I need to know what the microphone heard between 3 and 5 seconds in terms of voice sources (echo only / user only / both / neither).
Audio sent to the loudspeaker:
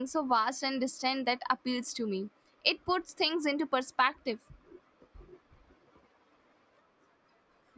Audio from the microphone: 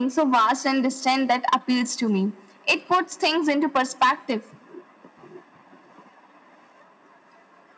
echo only